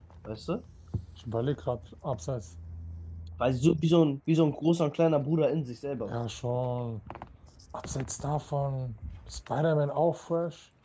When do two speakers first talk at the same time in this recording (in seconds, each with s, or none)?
none